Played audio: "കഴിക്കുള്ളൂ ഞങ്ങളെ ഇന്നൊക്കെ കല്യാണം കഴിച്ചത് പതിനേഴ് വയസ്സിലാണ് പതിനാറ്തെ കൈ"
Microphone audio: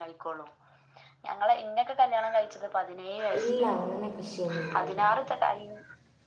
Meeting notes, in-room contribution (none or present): present